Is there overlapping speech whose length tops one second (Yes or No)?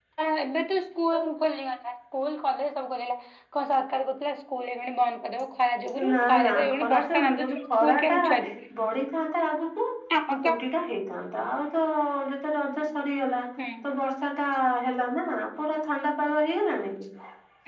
Yes